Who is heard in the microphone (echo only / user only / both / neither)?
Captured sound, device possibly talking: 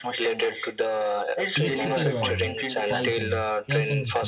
both